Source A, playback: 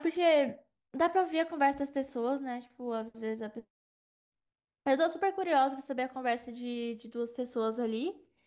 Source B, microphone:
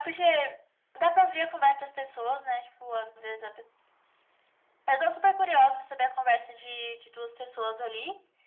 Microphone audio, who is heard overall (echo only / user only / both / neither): echo only